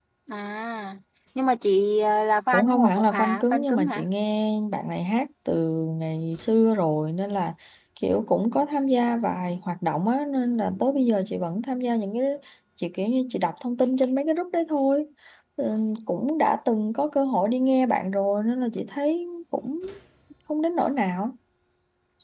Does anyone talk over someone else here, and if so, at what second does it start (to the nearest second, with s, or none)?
3 s